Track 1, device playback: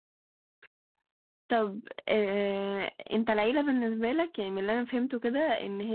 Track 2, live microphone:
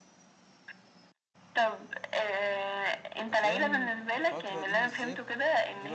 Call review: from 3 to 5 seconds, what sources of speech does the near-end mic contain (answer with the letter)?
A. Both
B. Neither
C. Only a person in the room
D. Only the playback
A